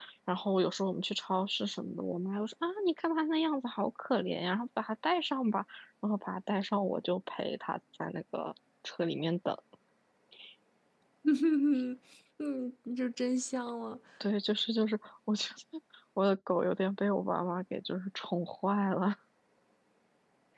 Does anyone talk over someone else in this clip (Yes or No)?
No